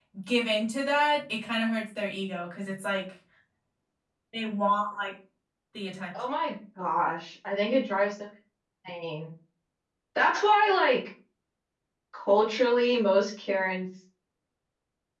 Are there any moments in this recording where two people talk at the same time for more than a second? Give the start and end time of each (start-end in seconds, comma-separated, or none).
none